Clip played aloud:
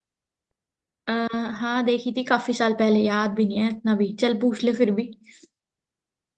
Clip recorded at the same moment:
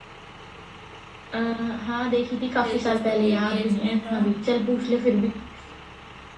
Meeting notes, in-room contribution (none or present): present